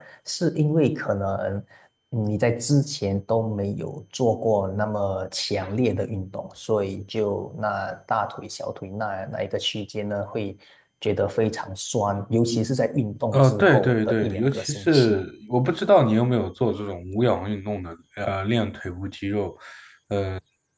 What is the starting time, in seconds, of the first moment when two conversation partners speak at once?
13 s

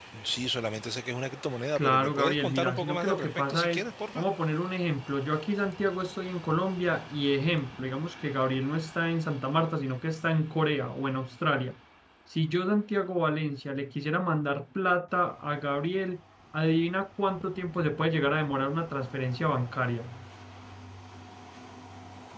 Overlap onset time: 2 s

